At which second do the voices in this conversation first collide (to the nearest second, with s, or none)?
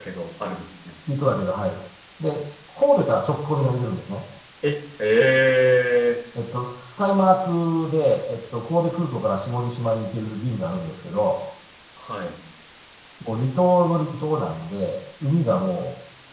none